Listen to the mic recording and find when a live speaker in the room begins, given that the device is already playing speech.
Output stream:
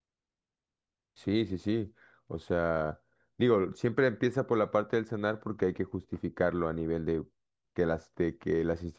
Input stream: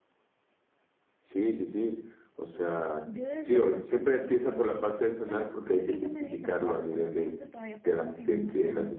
3.0 s

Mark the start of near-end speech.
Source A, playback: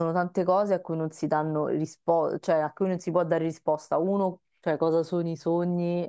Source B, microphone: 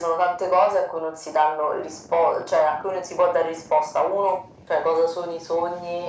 none

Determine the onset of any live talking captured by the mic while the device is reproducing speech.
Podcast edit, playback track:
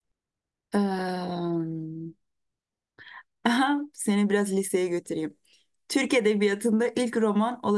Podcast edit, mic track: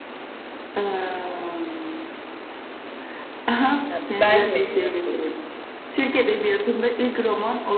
3.9 s

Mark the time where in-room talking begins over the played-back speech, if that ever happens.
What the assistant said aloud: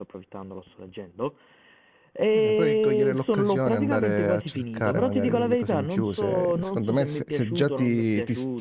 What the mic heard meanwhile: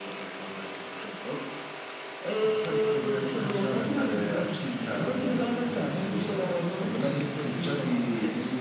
none

